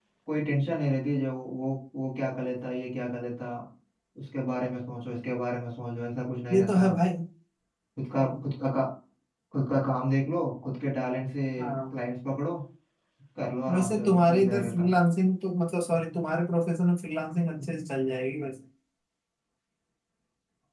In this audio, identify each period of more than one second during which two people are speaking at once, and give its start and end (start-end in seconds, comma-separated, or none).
13.7-14.9